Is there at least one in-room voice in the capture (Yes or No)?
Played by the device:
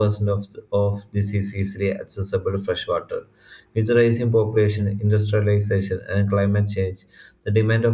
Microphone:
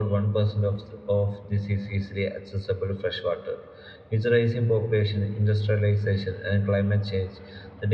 No